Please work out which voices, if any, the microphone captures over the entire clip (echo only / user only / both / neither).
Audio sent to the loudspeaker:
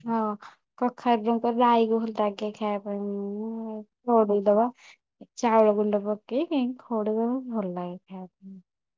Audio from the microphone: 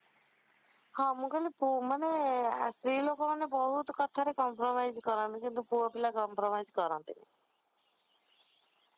user only